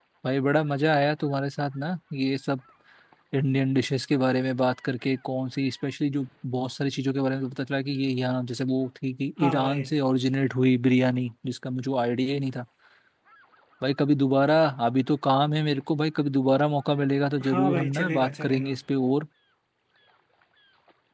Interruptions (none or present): present